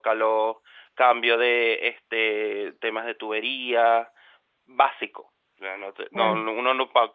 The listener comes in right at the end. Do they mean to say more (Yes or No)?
No